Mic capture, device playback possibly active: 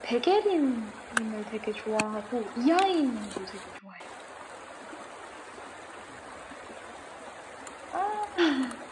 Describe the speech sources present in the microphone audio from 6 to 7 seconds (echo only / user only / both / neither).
neither